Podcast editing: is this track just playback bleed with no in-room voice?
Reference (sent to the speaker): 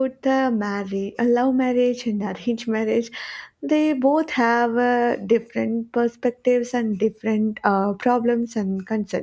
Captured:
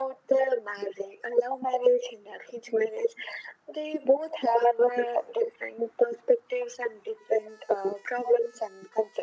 Yes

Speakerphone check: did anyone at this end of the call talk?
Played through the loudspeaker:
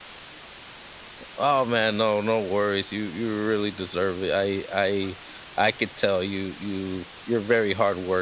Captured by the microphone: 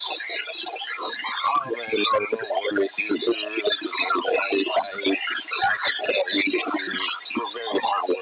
No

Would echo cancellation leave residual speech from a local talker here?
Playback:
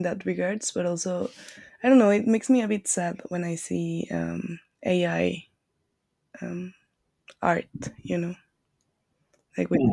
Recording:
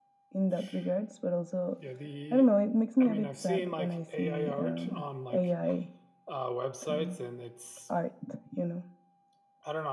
Yes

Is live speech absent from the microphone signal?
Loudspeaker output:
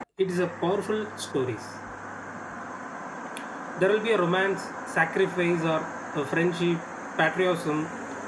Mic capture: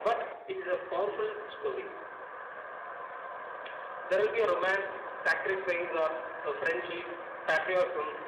Yes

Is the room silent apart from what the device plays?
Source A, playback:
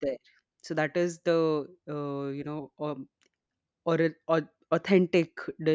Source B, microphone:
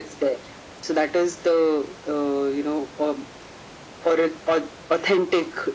Yes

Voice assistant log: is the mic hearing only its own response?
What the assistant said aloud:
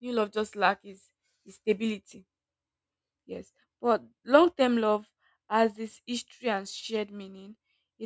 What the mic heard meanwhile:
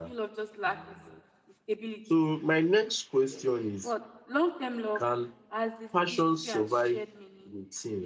No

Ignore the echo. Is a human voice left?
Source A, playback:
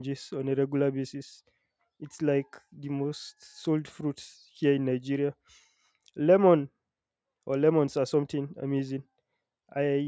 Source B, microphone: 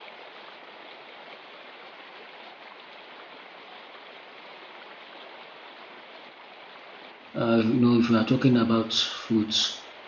Yes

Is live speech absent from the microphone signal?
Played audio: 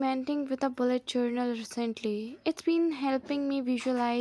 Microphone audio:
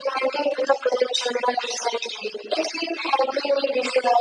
Yes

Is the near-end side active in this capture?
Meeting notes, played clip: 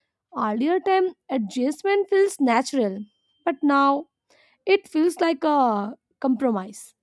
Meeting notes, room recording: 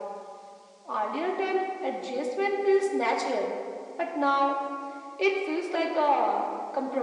No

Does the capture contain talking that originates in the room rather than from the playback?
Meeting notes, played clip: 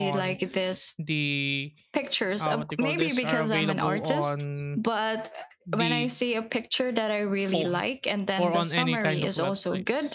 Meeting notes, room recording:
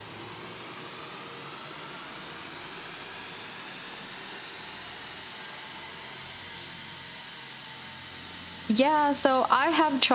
Yes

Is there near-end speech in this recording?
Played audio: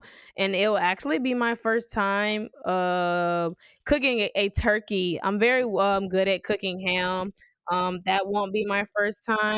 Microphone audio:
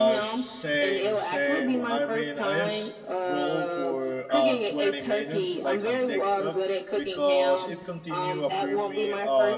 Yes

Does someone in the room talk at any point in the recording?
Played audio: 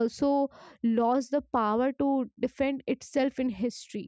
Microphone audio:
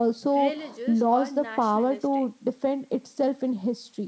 Yes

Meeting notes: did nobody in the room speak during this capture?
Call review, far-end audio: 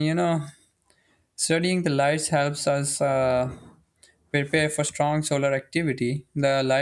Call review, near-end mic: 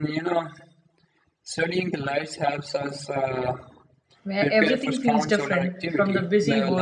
No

